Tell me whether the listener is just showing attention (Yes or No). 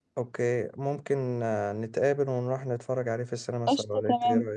No